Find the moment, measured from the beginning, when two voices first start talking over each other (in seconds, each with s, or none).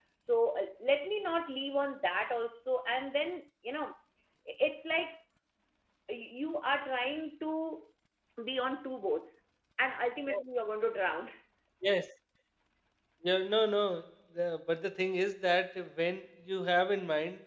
none